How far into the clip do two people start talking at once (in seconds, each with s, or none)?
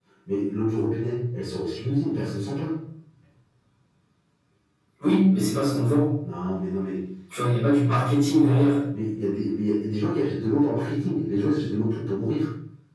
none